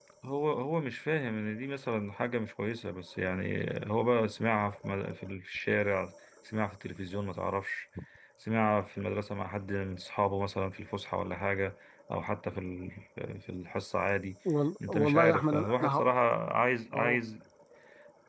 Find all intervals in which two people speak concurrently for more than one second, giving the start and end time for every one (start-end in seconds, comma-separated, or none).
14.9-16.1